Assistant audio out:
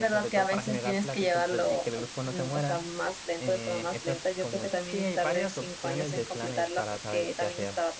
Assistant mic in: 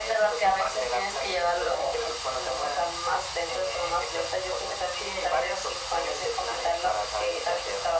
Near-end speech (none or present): none